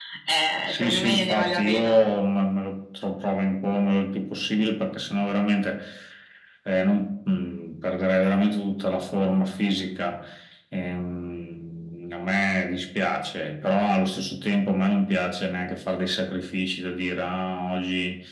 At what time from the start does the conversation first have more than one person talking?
0.6 s

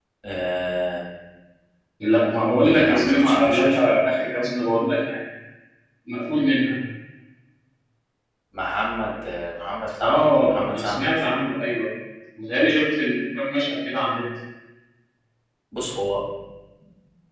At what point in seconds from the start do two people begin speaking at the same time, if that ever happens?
2.6 s

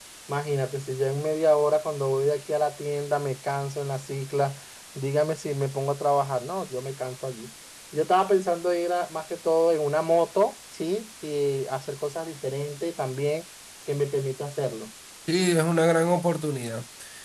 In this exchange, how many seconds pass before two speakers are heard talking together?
none

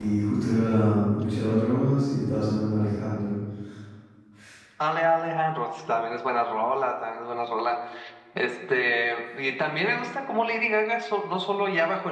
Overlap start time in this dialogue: none

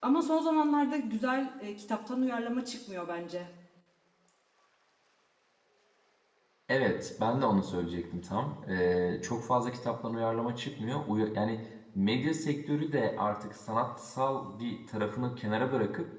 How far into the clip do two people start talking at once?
none

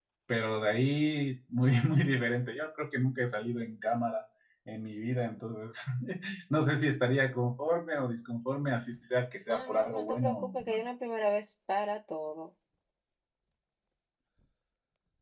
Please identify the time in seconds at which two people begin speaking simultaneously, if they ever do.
9.5 s

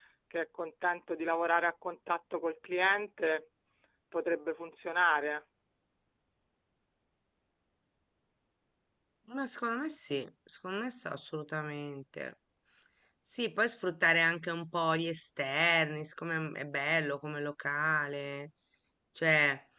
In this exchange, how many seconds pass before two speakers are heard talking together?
none

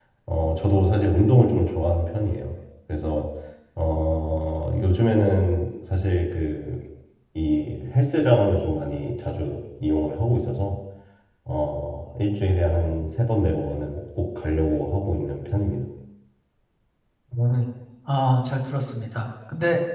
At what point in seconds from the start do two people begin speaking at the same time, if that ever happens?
none

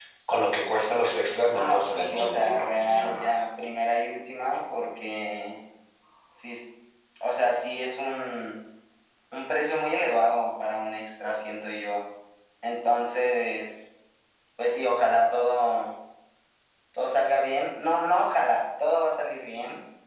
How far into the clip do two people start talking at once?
1.5 s

